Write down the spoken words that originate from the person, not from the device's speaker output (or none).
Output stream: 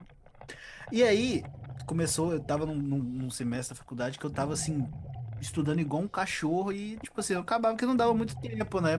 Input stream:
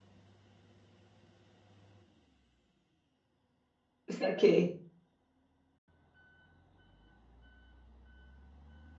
Saquei.